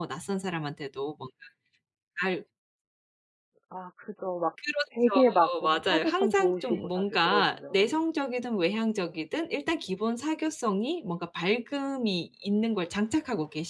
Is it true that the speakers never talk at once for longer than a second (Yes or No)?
No